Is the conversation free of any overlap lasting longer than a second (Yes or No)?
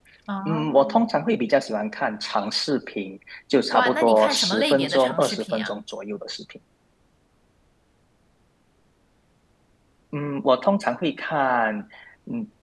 No